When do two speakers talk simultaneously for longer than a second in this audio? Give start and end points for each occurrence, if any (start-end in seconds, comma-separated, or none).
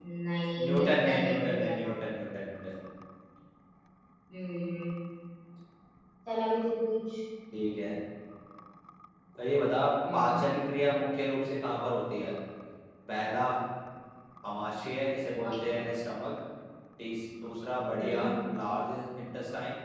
0.7-1.9